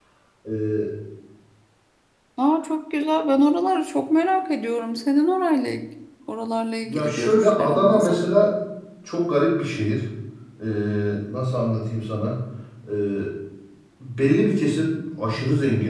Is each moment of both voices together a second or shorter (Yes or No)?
No